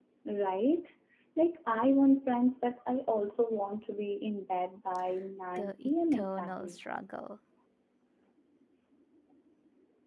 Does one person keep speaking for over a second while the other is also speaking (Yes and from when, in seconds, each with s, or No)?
Yes, from 5.6 s